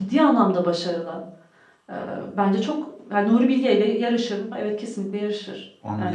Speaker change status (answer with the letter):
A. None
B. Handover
B